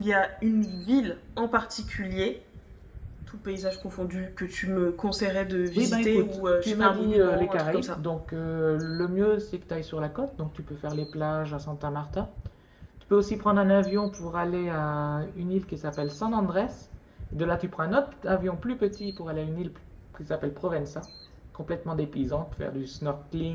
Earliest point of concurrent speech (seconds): 5.8 s

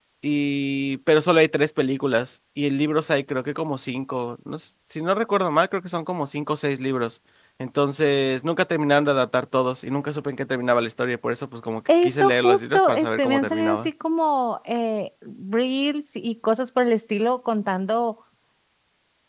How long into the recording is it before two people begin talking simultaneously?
11.9 s

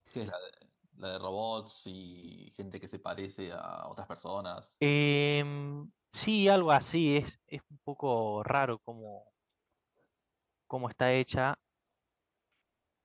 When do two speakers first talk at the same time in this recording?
none

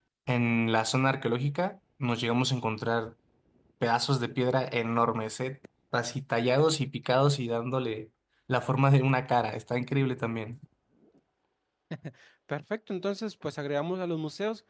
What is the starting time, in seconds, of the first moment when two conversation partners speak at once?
none

